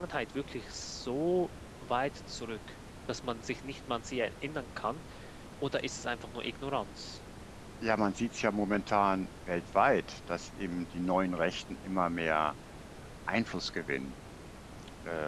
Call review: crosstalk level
none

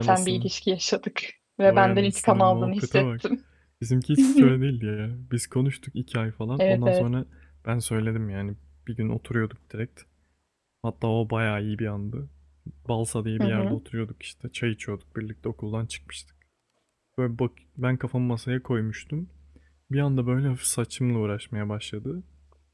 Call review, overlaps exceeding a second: present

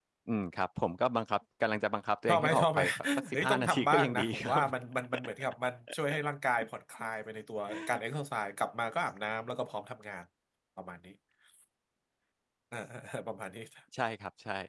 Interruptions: present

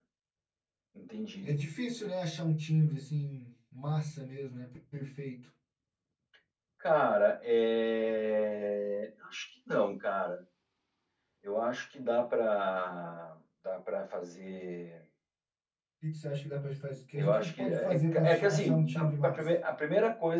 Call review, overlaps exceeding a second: present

